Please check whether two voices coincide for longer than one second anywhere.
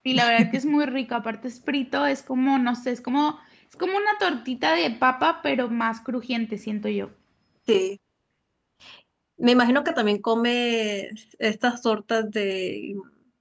No

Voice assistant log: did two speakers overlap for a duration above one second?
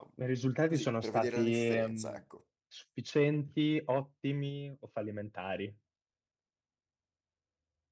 Yes, from 0.7 s

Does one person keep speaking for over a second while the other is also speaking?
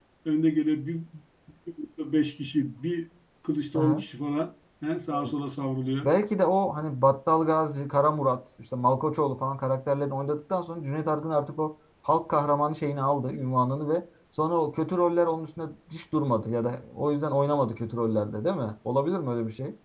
No

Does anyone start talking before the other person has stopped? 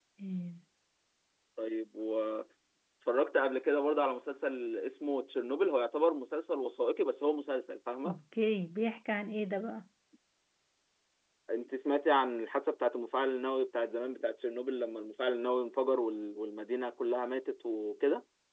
No

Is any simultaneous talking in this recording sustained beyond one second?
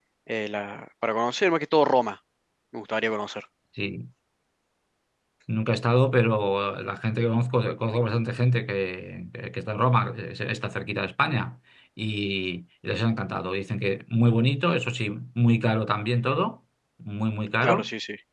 No

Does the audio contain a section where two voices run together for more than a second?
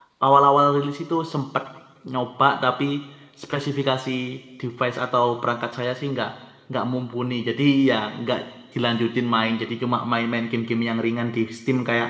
No

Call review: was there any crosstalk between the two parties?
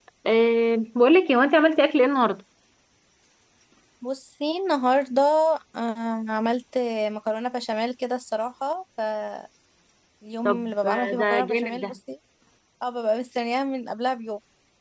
Yes, from 10.4 s

